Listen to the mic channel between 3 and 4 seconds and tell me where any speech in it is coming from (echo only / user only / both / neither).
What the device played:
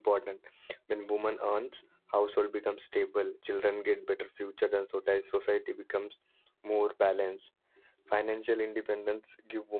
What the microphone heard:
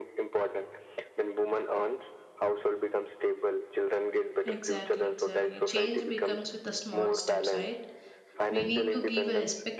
echo only